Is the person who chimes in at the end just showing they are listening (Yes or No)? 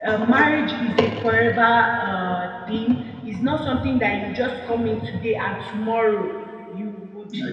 No